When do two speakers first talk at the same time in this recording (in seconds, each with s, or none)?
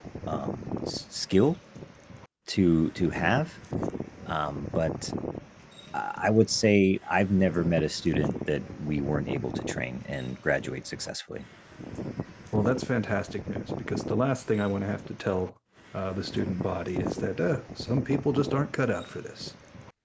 none